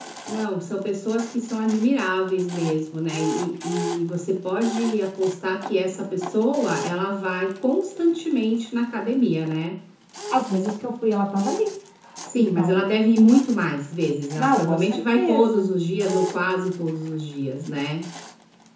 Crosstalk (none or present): present